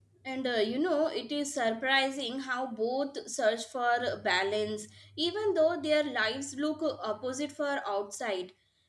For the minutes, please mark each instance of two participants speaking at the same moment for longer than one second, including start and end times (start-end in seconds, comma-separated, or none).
none